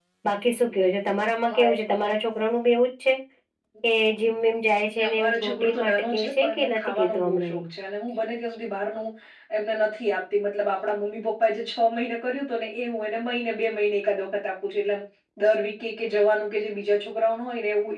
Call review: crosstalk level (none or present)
present